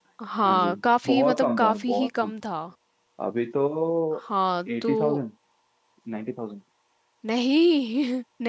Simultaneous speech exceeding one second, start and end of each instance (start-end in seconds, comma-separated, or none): 1.1-2.3